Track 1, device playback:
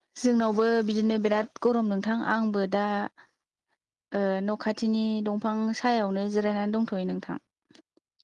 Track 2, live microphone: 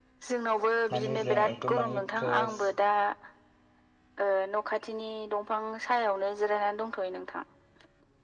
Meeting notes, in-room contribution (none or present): present